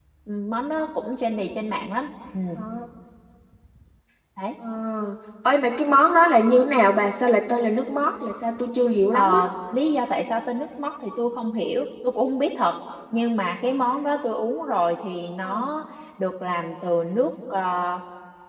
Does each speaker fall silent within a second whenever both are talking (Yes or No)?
Yes